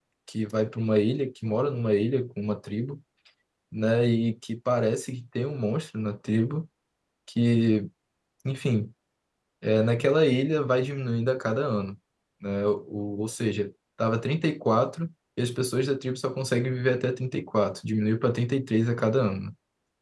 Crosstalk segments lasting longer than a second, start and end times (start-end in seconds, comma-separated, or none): none